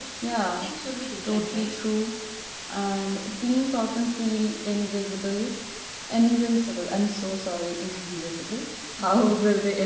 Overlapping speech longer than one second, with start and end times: none

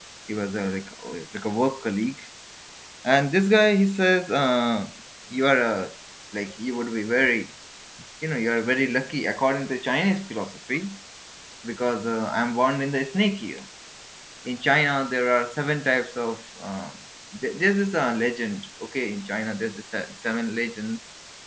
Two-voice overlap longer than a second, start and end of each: none

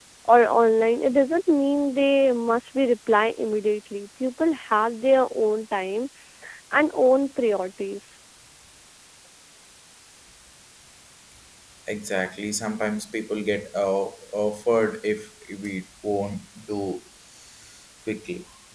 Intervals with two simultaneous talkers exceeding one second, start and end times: none

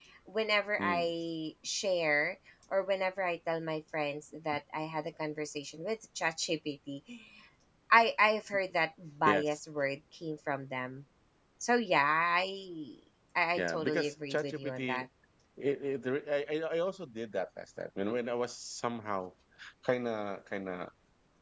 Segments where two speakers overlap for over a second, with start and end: 13.6-15.0

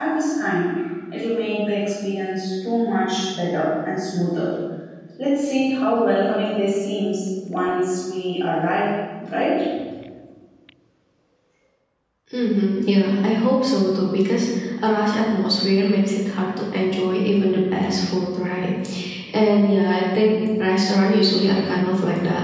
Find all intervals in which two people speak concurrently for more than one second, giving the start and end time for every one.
none

